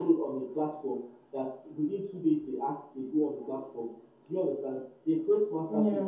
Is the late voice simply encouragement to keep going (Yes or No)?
Yes